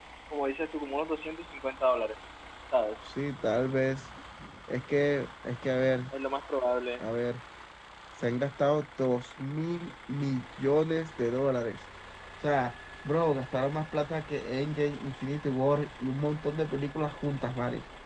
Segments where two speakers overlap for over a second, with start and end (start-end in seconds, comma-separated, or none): none